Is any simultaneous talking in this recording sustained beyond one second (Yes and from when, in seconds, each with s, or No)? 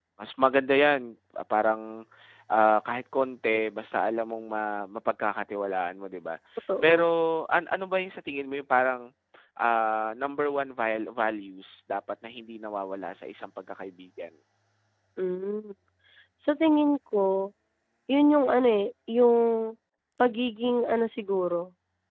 No